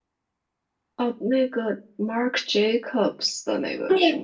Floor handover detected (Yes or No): Yes